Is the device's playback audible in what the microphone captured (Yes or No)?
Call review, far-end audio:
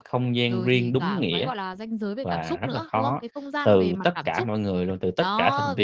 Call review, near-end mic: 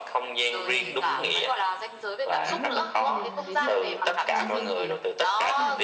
Yes